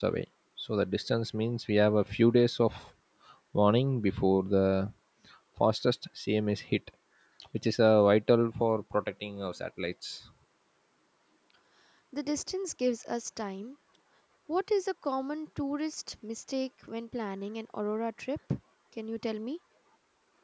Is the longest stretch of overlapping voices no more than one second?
Yes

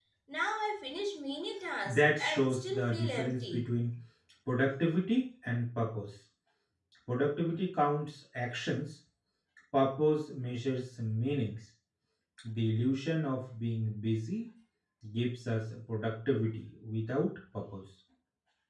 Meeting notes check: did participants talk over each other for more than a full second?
Yes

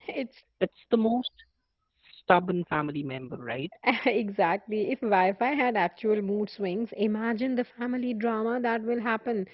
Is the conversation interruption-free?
Yes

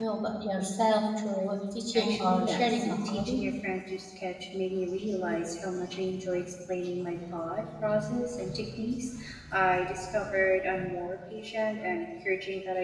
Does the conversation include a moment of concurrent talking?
Yes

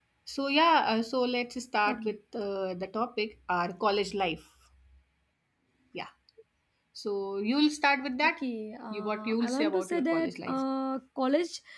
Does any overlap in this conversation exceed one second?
Yes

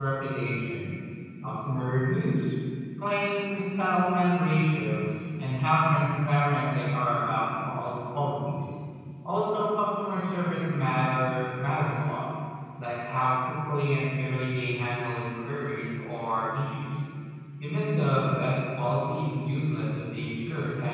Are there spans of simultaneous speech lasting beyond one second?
No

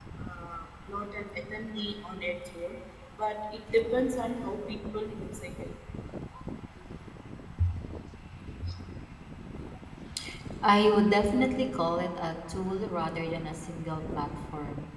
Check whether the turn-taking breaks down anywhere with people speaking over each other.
No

